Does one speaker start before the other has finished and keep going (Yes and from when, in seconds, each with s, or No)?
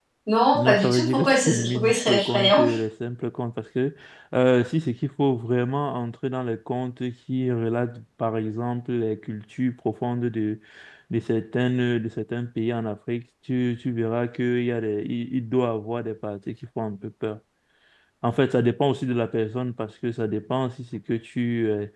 Yes, from 0.6 s